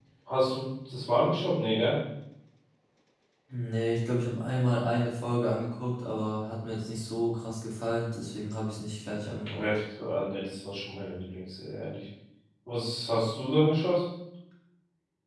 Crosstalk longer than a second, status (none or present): none